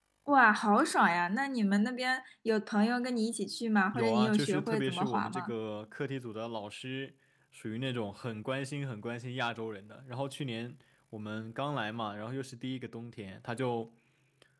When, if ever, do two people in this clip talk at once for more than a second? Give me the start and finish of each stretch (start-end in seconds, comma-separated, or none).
3.9-5.5